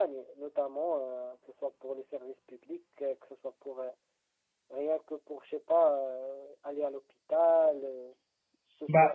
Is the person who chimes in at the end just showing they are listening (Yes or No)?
No